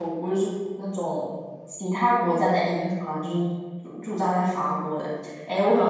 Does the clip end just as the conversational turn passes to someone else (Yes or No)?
Yes